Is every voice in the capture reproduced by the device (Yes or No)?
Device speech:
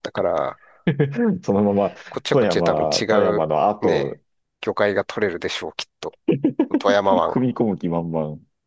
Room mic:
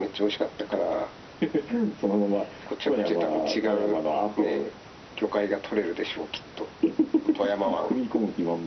Yes